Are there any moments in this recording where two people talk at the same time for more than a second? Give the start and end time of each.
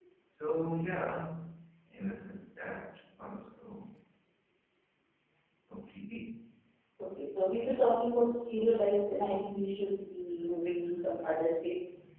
none

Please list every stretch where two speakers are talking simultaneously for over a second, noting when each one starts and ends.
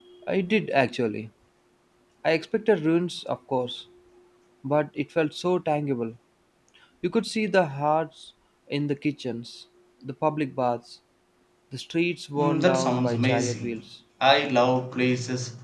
12.4-13.8

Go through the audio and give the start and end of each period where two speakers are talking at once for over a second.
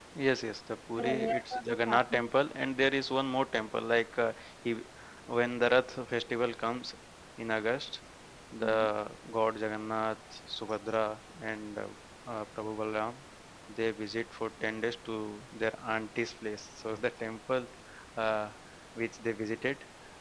1.0-2.2

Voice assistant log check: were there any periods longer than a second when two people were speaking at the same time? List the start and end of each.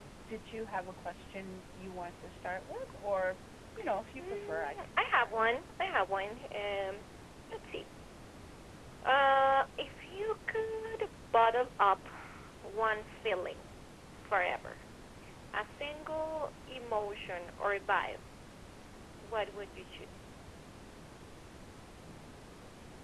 4.2-5.5

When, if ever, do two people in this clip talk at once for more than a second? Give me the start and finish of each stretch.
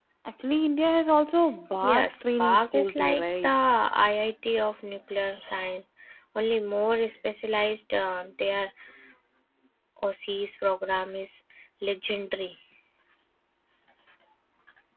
1.9-3.5

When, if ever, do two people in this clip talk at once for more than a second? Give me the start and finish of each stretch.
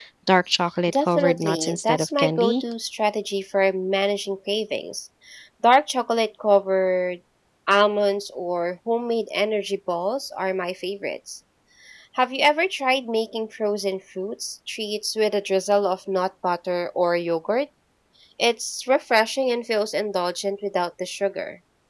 0.9-2.6

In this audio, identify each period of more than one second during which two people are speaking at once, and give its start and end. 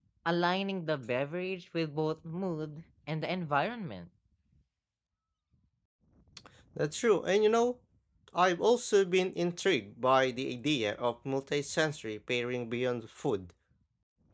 none

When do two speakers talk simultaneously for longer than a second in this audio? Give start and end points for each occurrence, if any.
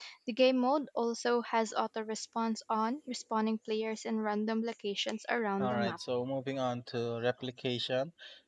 none

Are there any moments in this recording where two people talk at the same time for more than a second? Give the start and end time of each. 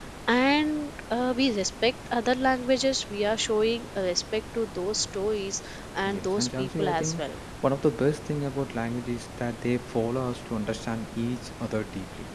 6.0-7.2

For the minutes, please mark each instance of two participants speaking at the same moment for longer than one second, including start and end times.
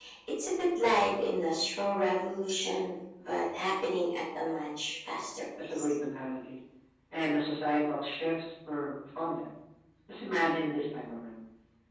none

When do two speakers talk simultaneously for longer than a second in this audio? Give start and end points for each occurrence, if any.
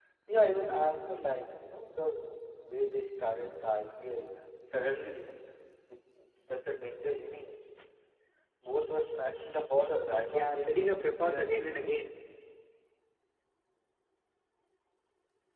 10.2-12.1

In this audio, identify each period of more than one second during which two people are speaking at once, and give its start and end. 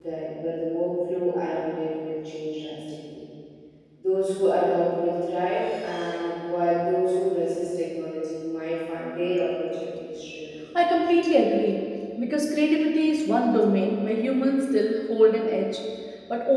none

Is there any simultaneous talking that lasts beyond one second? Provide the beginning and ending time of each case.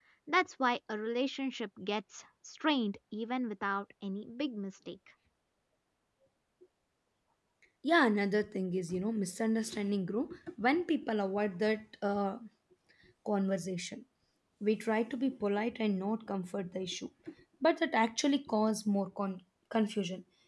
none

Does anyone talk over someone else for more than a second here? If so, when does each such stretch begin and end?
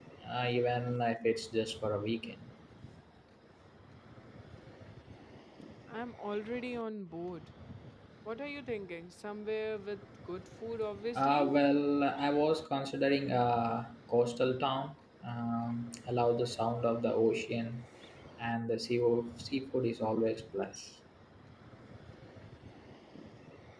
none

